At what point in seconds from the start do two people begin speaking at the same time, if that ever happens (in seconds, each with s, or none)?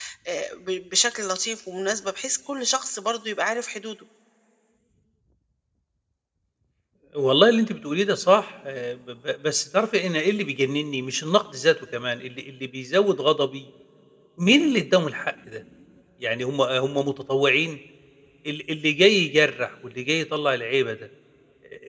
none